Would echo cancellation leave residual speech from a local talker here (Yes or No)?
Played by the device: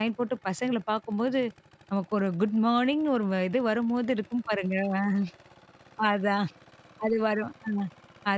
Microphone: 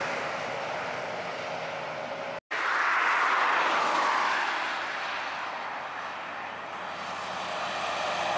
No